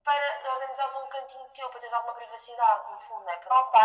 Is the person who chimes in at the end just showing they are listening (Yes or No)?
No